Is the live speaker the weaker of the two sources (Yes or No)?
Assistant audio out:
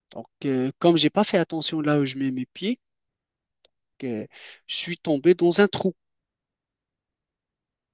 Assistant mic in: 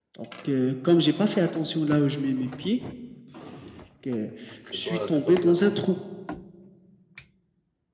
Yes